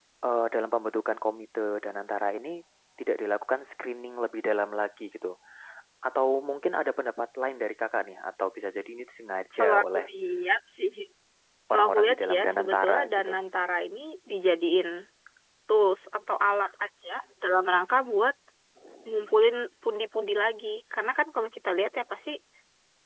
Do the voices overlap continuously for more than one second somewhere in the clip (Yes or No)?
Yes